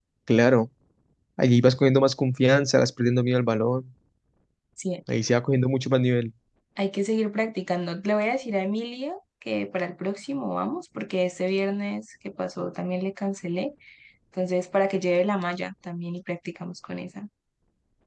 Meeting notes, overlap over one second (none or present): none